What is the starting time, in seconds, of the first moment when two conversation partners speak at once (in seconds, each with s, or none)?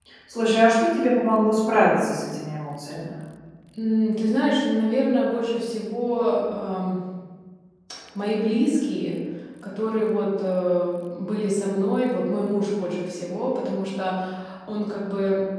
none